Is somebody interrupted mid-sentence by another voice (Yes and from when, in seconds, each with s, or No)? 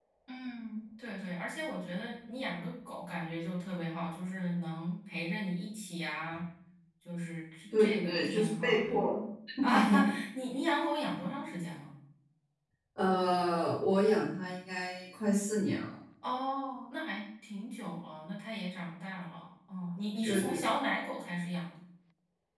Yes, from 7.8 s